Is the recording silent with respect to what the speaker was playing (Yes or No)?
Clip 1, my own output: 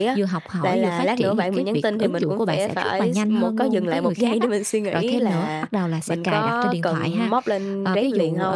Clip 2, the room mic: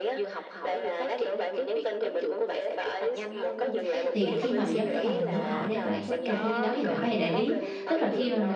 No